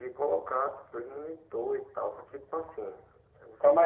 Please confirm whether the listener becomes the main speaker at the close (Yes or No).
Yes